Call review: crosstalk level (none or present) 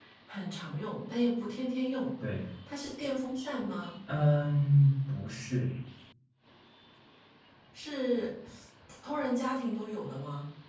none